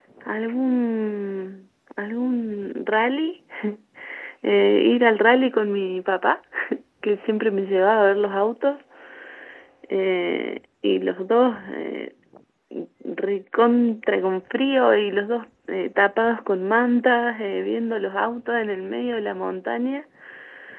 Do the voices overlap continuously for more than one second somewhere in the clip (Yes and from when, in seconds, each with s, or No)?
No